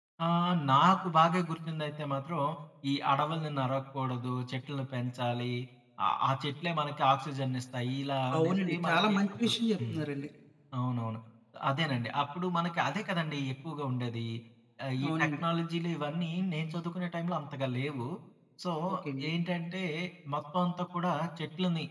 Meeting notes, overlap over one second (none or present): present